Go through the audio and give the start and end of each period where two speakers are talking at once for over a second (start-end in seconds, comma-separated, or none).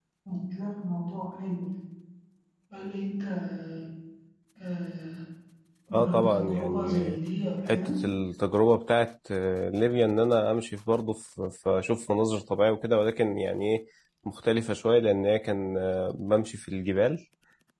5.9-7.2